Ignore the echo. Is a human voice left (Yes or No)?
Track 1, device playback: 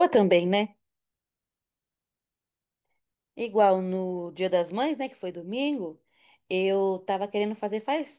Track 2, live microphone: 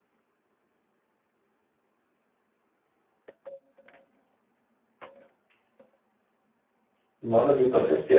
Yes